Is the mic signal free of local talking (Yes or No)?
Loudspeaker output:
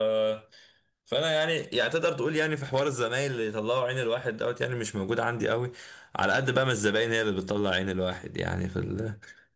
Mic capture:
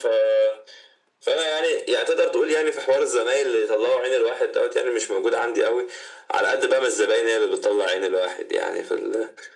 Yes